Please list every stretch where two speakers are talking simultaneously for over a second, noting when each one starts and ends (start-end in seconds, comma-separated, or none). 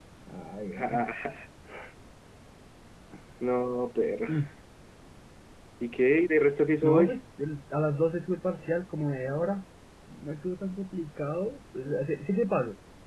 none